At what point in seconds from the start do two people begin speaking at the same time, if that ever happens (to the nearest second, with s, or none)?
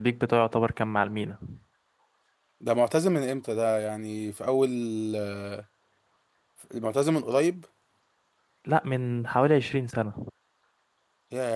none